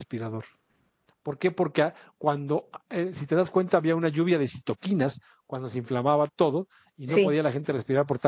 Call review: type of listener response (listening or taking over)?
listening